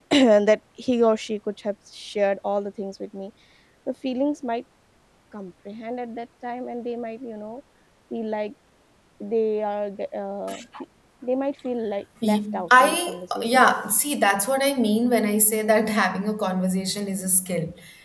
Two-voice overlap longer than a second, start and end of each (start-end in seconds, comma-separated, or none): 12.2-13.6